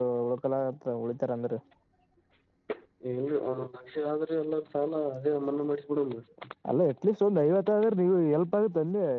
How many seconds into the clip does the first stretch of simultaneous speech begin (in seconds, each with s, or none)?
none